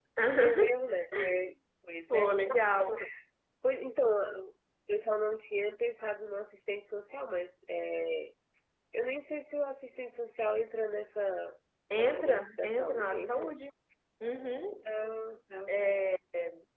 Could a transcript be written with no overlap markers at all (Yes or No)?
No